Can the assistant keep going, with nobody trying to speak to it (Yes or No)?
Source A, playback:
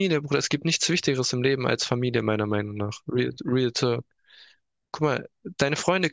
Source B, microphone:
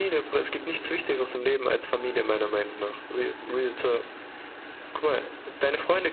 Yes